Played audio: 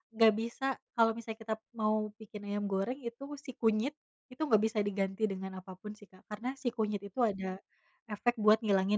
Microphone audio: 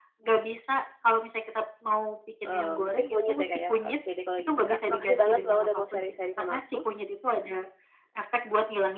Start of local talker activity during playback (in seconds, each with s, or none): 2.4 s